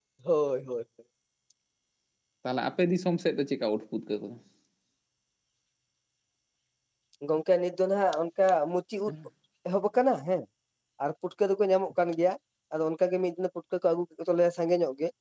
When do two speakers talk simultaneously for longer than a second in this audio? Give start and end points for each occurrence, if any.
none

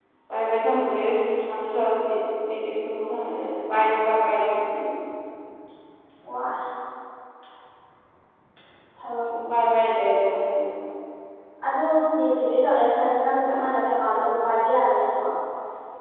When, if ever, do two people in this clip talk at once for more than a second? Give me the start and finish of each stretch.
none

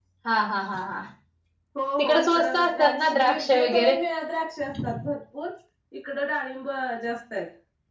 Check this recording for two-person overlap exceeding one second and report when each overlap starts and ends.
2.0-3.9

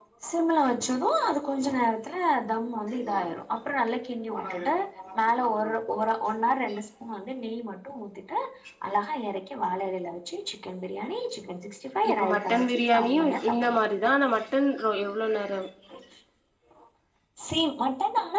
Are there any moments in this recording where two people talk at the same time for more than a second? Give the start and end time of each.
12.1-13.8

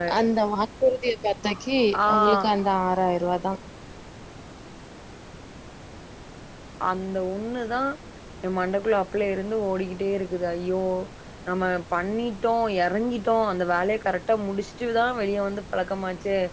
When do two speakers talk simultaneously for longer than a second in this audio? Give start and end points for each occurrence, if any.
none

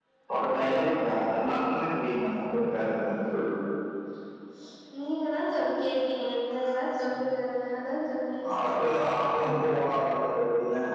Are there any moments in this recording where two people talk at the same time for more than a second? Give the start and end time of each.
none

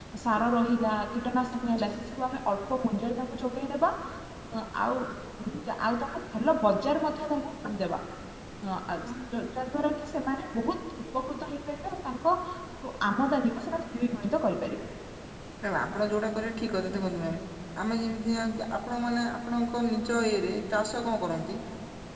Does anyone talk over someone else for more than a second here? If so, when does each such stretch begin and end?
none

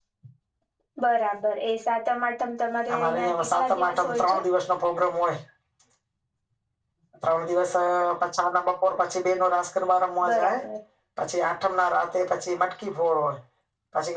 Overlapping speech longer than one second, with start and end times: 2.9-4.4

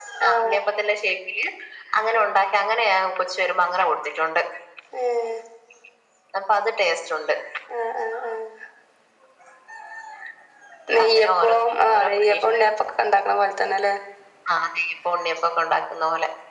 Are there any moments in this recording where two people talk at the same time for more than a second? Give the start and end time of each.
11.0-12.6

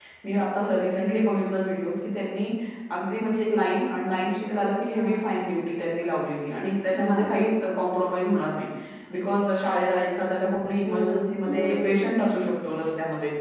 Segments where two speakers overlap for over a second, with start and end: 10.8-12.1

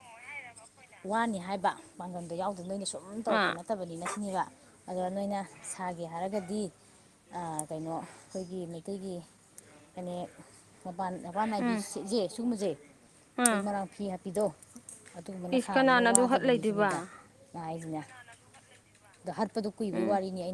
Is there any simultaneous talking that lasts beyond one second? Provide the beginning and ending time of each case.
15.6-16.9

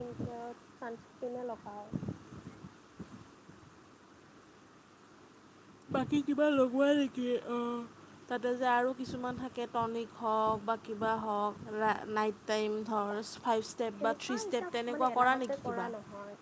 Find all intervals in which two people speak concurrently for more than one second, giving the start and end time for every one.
14.0-15.9

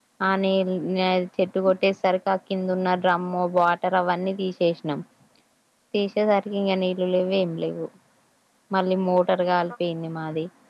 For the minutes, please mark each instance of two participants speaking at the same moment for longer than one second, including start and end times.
none

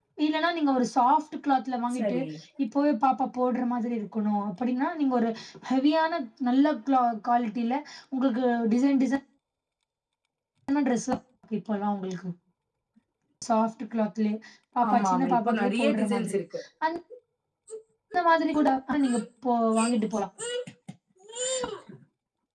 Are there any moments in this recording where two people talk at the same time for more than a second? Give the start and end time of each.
14.9-16.4

